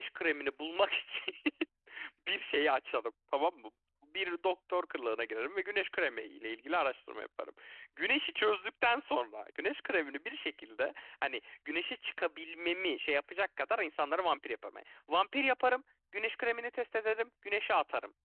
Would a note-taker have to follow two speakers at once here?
No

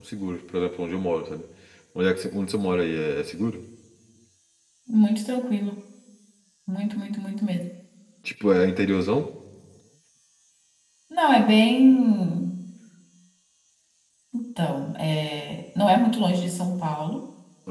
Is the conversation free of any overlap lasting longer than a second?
Yes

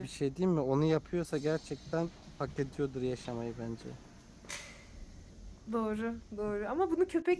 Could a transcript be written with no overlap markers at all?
Yes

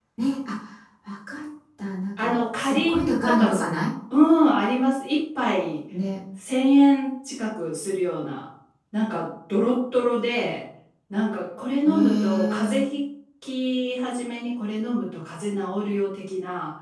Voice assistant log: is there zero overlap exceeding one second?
No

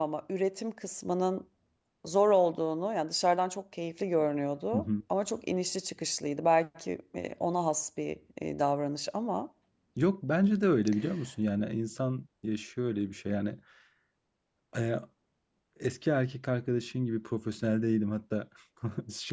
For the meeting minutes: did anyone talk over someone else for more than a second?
No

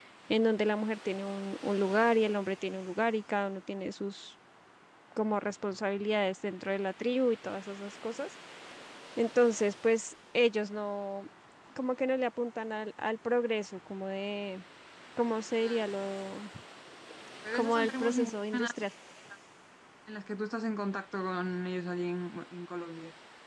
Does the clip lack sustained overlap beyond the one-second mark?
No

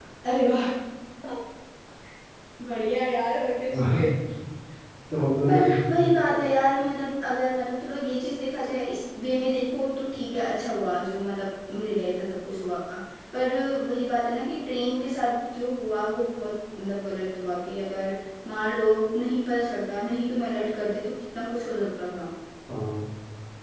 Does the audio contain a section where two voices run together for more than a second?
No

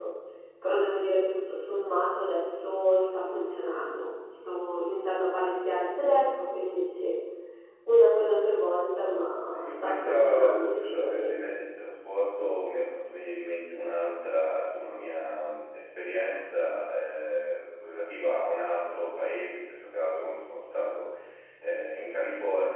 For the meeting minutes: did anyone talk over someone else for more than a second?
Yes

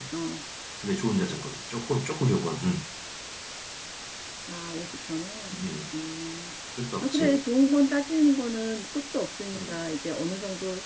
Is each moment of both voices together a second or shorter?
Yes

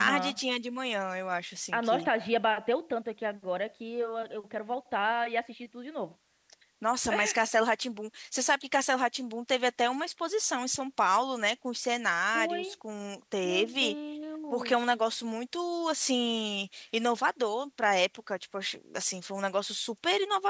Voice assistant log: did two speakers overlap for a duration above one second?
No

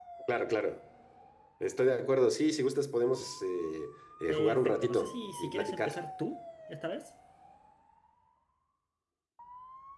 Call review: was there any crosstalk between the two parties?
Yes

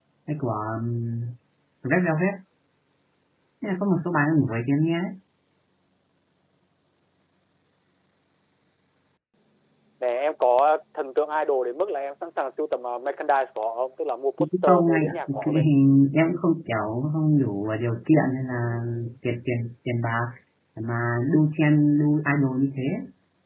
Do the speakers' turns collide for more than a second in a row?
Yes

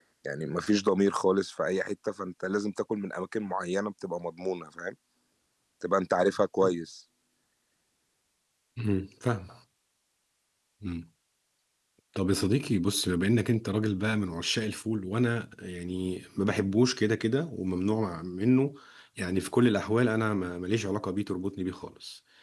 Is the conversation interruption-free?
Yes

